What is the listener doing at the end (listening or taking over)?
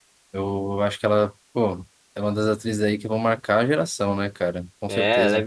taking over